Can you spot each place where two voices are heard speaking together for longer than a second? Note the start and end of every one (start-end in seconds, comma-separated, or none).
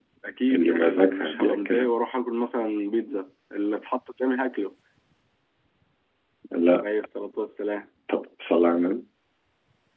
0.5-1.9